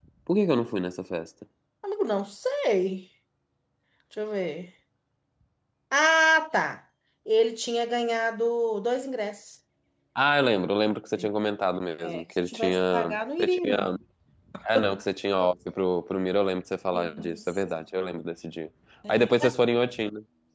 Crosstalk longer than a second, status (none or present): present